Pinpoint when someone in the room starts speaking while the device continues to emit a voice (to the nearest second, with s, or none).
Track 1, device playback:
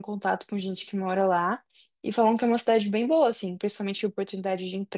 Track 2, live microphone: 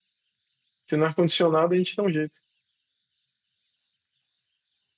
1 s